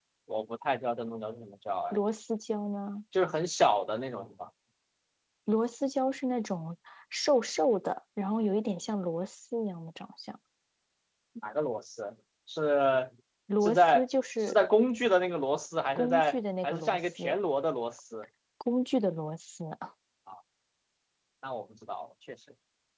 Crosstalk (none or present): present